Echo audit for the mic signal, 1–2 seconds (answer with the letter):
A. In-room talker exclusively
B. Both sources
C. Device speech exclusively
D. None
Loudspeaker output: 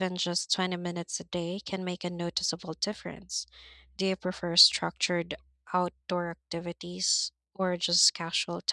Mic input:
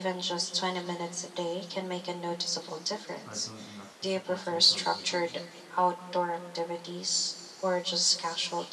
C